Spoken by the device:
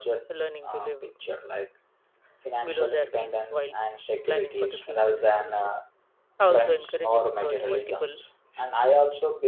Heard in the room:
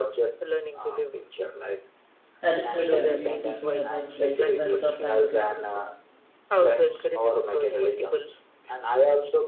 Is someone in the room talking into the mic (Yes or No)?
Yes